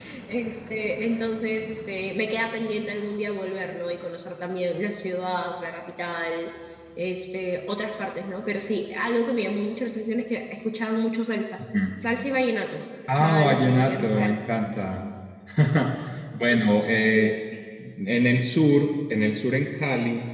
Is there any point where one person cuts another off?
Yes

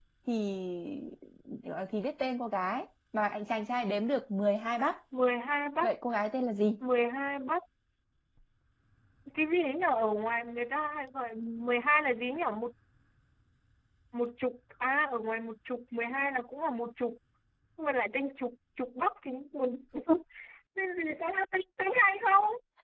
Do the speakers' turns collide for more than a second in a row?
No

